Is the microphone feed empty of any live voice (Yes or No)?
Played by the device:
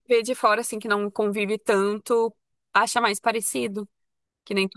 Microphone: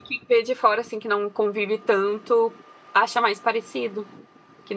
Yes